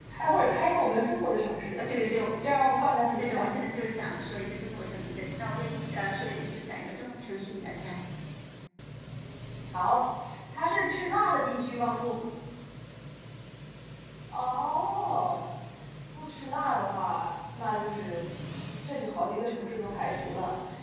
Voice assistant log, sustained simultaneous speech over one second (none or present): none